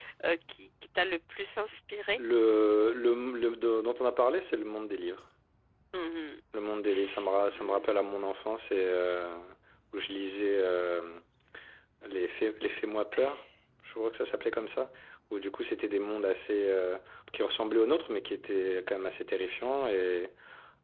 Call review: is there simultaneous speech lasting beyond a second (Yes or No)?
No